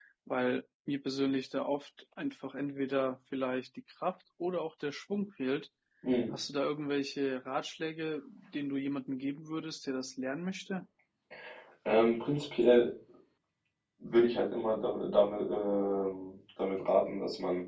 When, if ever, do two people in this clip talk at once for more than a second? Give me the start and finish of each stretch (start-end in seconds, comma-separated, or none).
none